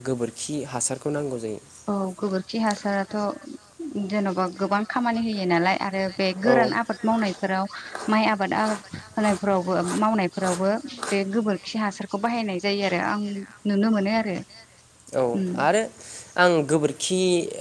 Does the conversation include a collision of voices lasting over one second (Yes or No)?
No